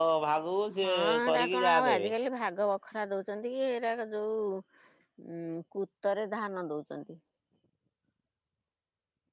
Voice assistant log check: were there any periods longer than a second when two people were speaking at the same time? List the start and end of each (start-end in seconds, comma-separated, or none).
0.8-2.1